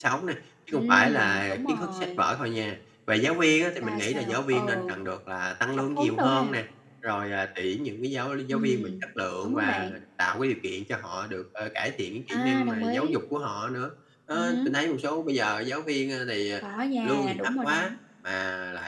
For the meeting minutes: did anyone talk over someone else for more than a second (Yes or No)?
Yes